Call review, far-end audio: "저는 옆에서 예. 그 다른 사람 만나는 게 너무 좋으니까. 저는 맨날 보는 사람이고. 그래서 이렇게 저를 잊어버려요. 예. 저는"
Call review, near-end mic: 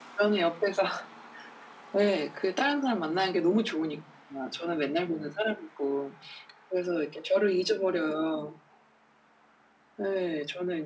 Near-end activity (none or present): none